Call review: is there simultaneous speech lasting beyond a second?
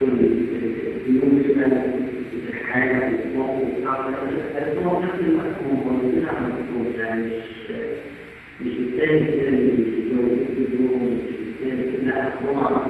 No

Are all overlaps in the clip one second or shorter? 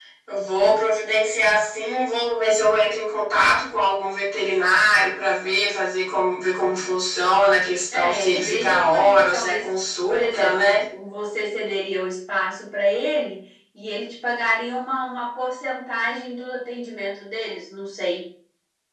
No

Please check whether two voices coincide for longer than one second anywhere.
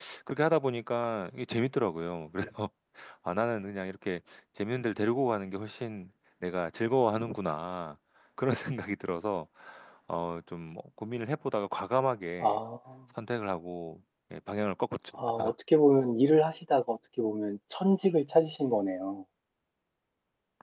No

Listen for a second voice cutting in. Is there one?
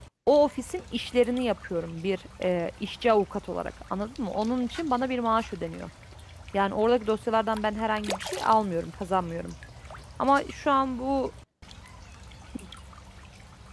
No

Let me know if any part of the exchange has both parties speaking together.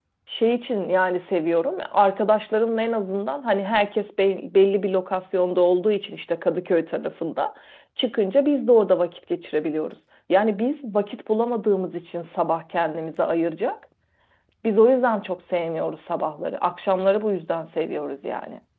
No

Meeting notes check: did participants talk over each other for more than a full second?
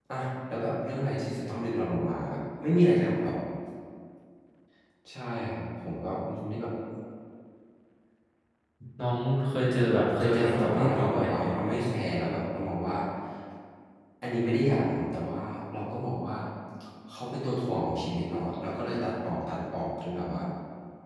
Yes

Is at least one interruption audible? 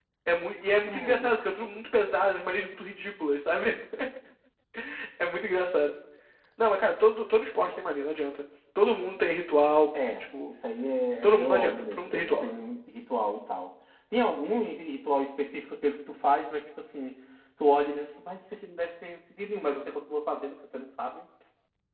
Yes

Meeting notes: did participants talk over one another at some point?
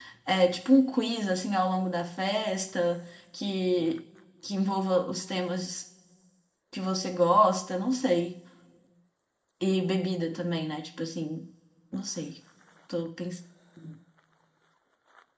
No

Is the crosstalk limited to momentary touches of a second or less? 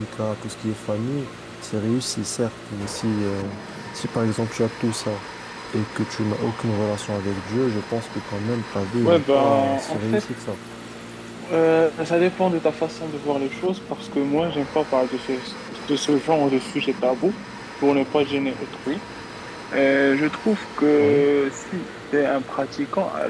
No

